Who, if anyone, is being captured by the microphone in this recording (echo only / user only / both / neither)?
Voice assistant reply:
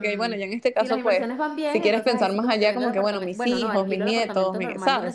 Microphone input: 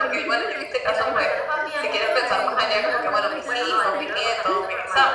both